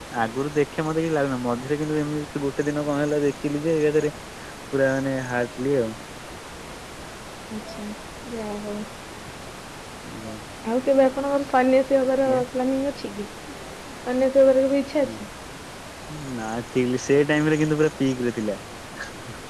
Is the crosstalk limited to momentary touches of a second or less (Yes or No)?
Yes